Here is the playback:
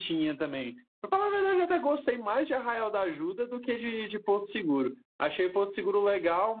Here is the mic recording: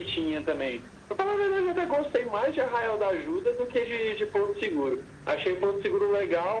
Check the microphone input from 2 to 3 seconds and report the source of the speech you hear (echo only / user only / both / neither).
echo only